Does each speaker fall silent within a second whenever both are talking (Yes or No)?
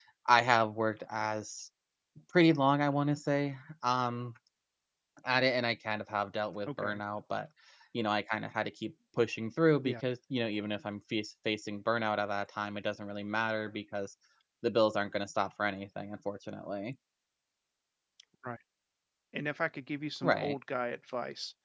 Yes